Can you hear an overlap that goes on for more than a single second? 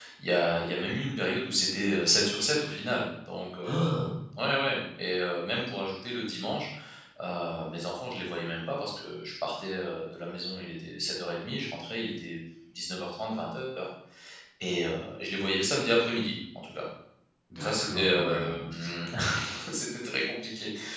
Yes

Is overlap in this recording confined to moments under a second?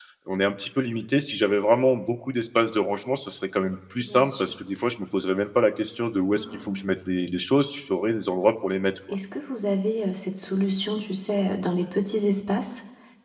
Yes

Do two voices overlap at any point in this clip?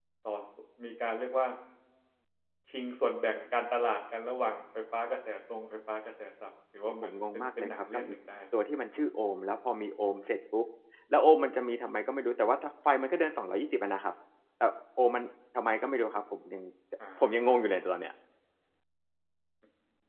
Yes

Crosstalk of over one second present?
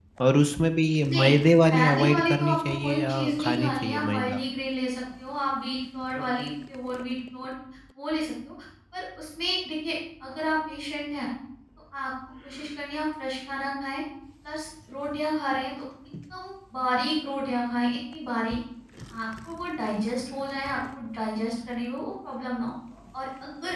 Yes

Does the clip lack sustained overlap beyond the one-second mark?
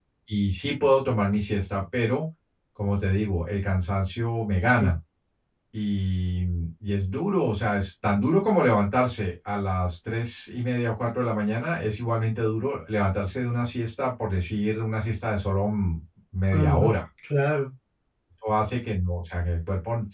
Yes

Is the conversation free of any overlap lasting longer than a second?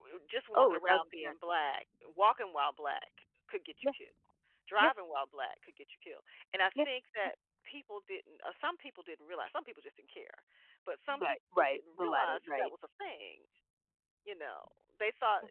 No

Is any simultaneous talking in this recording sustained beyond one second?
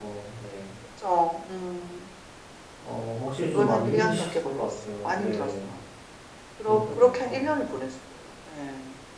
Yes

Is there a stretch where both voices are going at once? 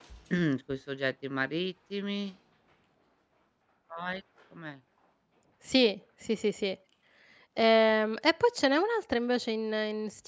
No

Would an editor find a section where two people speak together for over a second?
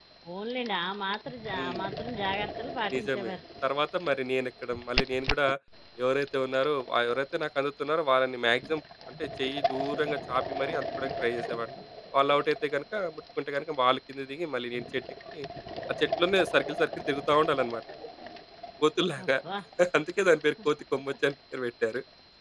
No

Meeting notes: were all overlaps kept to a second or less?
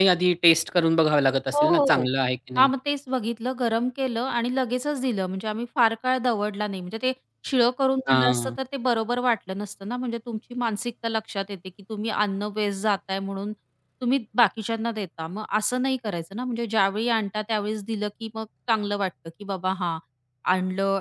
Yes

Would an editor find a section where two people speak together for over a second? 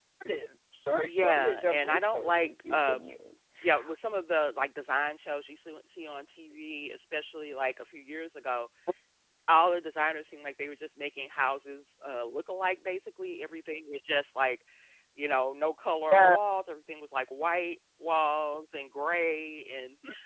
Yes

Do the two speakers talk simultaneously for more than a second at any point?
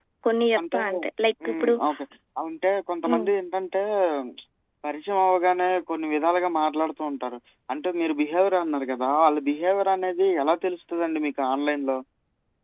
No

